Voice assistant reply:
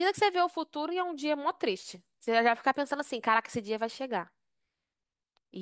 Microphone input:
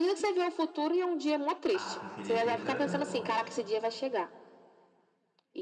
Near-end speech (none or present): present